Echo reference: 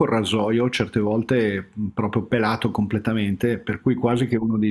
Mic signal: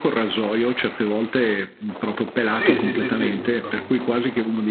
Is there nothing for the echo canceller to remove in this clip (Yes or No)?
No